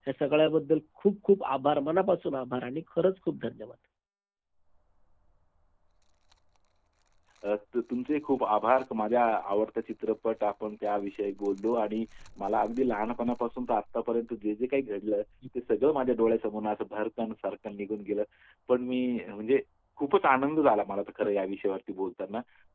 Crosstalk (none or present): none